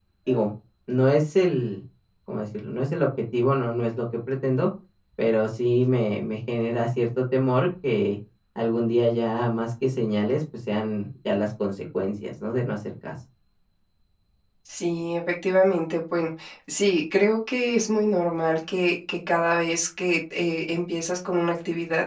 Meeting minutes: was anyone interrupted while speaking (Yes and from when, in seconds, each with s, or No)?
No